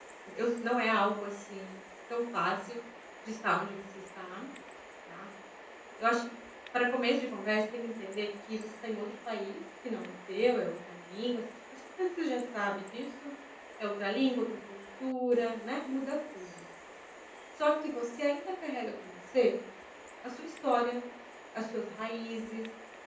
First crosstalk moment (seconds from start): none

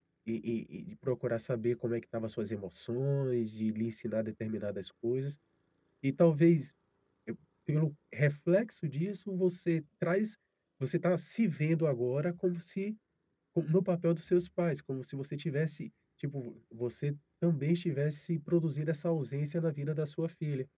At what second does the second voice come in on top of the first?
none

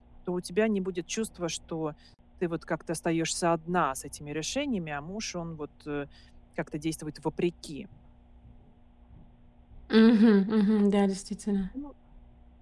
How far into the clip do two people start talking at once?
none

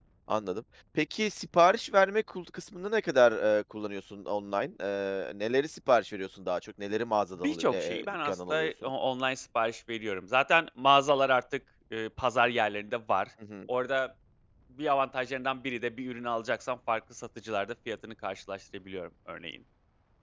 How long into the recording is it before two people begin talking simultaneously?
7.4 s

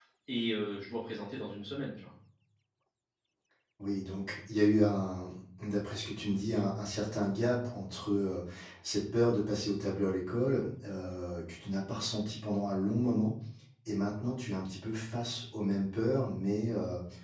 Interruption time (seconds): none

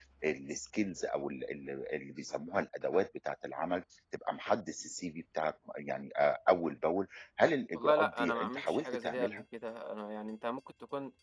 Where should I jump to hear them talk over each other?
7.8 s

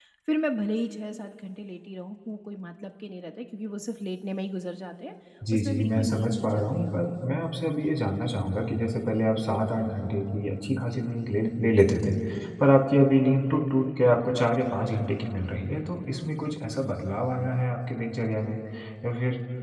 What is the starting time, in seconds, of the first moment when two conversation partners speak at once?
5.5 s

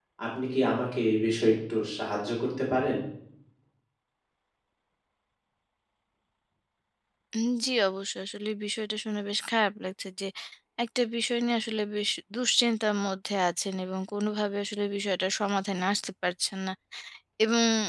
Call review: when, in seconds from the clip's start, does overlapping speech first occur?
none

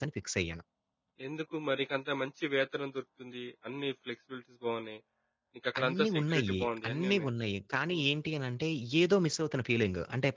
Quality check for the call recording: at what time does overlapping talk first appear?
5.8 s

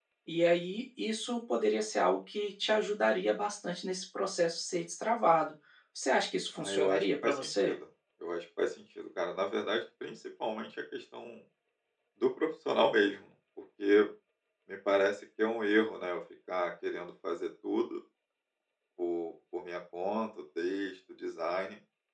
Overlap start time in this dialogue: 6.5 s

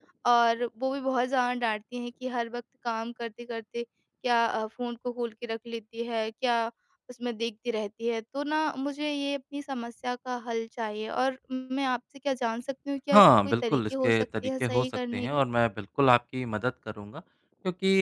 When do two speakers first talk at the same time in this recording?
13.1 s

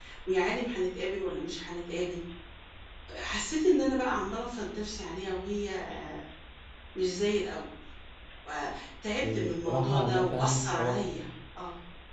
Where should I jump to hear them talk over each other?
9.2 s

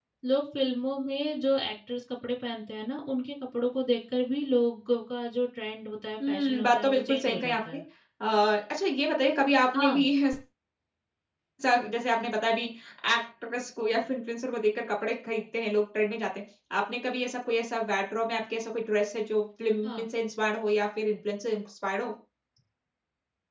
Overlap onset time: 6.3 s

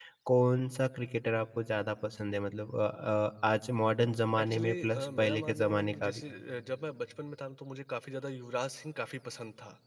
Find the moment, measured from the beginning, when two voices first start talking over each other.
4.3 s

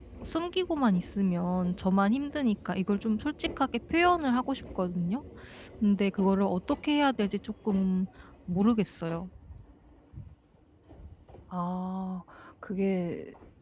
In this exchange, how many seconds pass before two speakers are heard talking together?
none

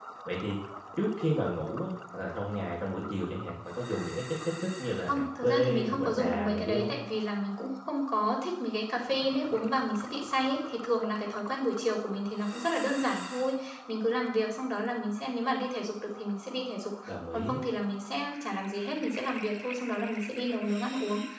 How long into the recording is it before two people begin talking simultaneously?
5.1 s

